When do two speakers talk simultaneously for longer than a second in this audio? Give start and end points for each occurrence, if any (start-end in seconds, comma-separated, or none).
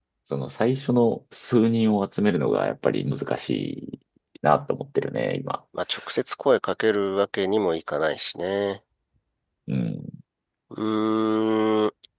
none